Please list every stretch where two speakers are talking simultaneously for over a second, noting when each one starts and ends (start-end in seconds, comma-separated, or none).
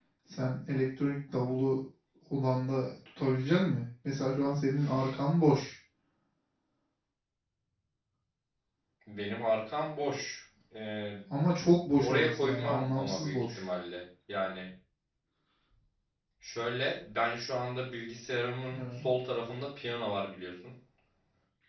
12.0-13.6